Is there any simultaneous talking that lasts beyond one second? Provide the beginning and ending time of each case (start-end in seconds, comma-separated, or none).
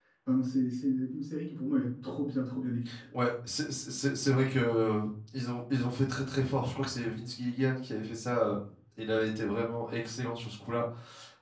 none